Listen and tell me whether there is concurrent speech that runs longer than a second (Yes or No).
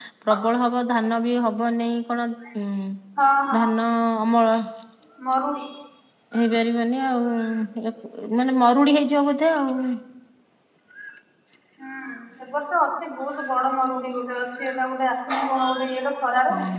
No